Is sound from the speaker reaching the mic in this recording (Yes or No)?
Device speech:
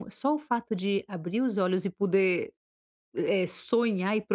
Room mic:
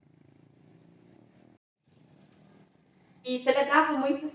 No